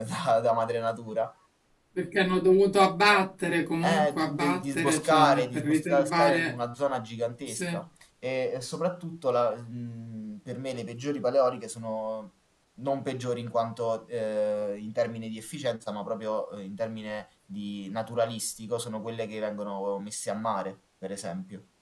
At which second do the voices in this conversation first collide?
3.8 s

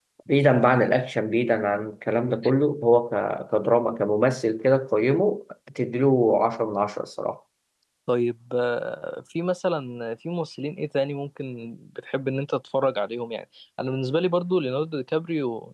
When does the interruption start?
none

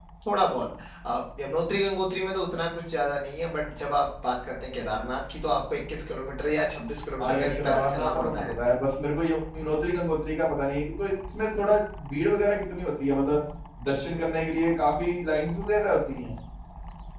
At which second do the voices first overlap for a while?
7.2 s

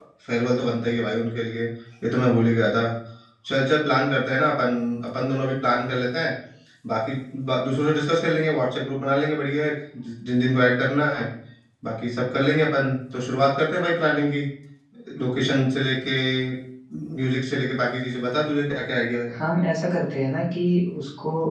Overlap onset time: none

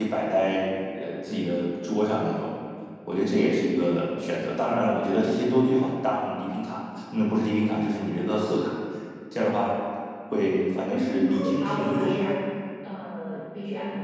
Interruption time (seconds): 10.9 s

